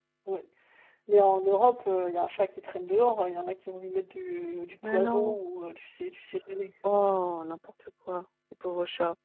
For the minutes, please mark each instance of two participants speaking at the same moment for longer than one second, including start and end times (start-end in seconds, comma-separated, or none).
none